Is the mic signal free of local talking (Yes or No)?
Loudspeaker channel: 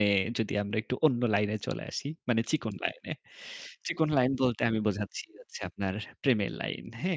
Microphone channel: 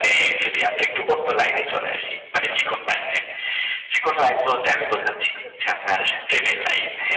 Yes